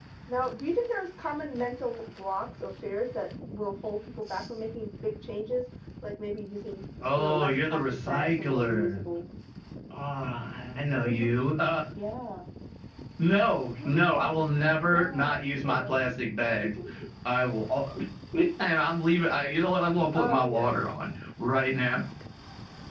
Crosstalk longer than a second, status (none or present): present